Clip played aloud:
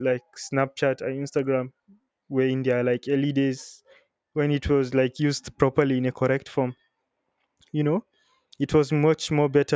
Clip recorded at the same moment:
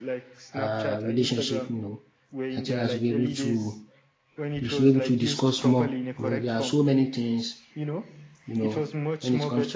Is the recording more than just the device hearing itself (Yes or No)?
Yes